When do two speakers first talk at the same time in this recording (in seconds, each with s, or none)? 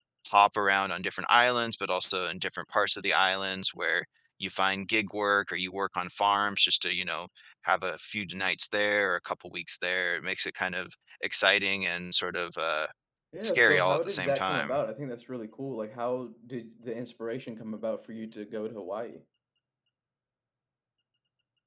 13.4 s